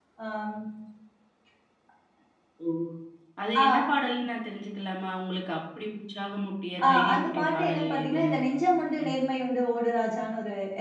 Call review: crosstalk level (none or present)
present